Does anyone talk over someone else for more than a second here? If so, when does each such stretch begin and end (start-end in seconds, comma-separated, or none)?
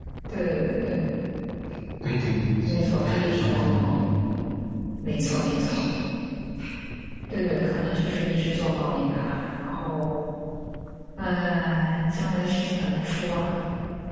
2.6-3.9